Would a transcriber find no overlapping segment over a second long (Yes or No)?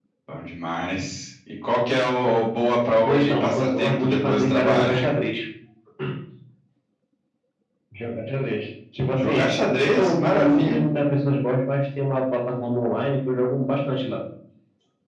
No